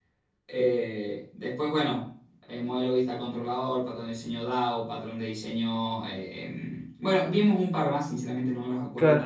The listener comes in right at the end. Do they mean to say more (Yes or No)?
Yes